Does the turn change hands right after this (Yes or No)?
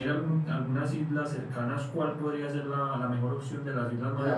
Yes